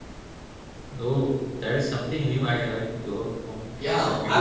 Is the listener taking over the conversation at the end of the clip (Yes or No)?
Yes